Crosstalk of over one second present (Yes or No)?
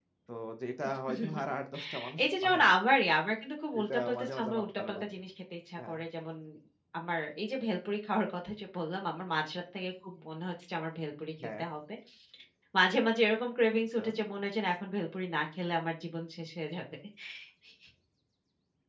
Yes